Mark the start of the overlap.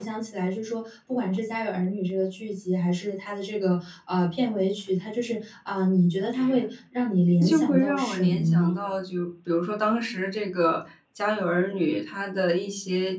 7.4 s

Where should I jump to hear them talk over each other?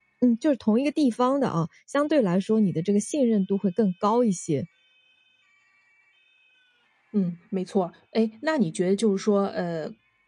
none

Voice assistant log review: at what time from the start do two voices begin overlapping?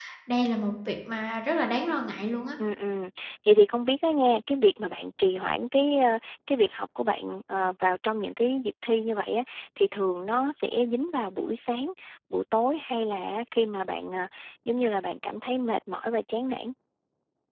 none

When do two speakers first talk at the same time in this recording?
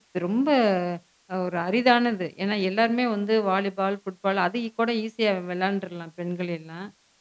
none

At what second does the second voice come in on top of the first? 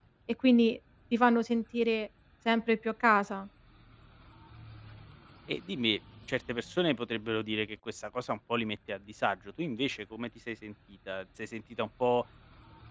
none

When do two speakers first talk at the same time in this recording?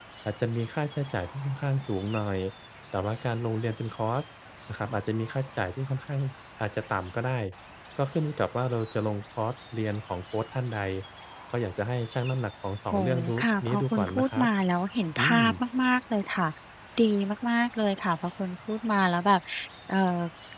12.9 s

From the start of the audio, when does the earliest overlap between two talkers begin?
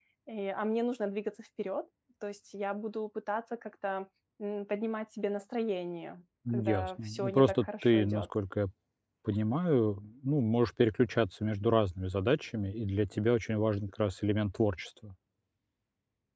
6.4 s

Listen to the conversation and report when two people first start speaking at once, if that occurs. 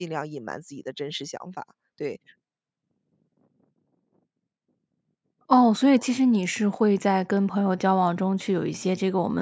none

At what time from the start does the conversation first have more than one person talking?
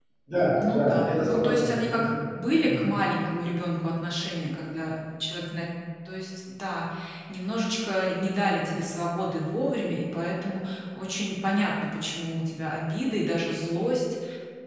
0.7 s

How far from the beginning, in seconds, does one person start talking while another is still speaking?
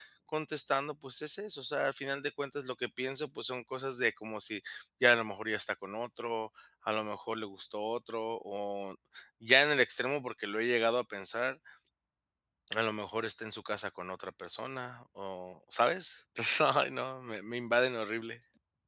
none

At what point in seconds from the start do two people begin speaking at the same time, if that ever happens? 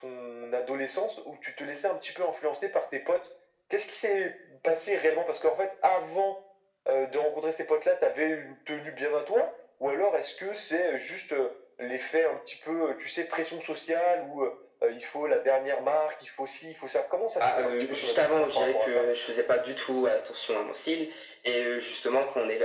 17.4 s

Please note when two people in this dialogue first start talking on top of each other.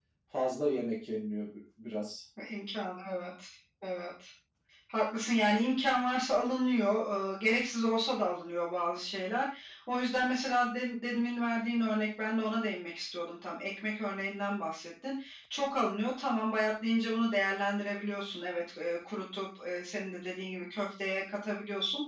none

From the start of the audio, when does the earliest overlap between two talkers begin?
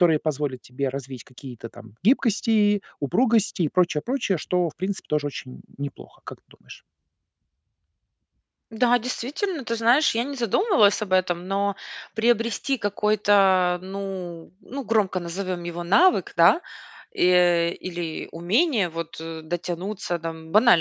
none

